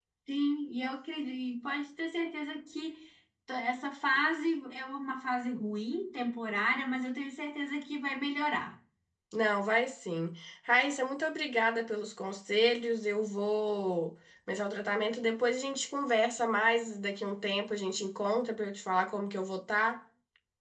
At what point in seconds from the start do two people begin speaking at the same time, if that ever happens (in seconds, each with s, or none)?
none